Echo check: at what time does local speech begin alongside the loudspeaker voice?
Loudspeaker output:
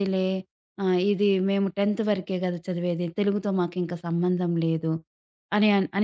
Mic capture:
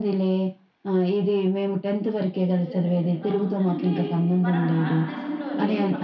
2.3 s

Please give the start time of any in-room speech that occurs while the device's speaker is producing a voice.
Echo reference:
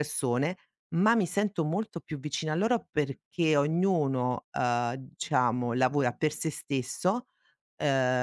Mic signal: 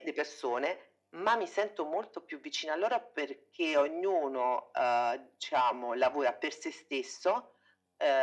none

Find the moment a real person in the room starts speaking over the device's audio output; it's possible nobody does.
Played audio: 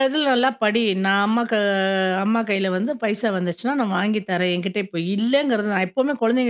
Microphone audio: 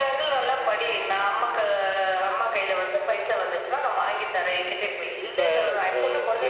5.2 s

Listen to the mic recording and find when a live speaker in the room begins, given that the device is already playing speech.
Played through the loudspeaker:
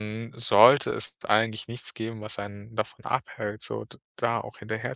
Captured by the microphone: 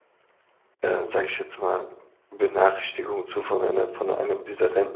0.8 s

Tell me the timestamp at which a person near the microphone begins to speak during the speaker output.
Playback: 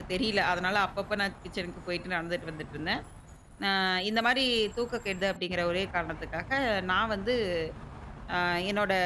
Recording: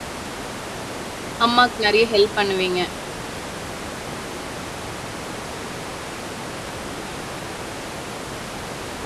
1.4 s

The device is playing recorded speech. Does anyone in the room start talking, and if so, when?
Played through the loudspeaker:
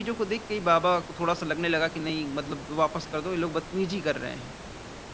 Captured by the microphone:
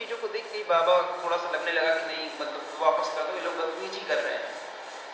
none

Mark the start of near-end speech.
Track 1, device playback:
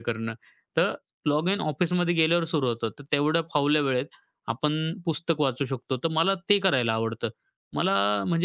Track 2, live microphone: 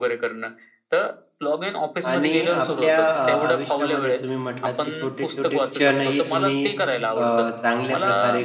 2.1 s

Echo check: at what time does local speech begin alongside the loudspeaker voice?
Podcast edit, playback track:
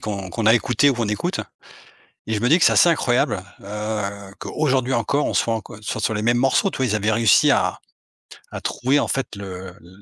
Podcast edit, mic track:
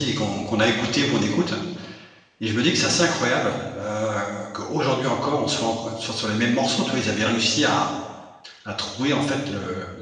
none

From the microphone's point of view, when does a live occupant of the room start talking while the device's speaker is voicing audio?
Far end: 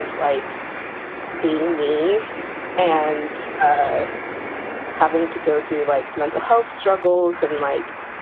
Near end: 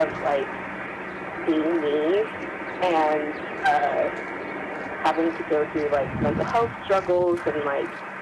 none

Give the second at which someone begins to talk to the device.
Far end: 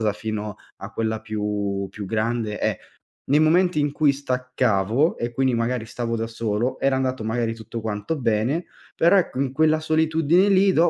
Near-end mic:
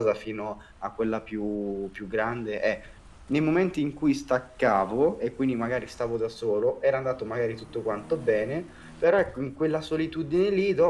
none

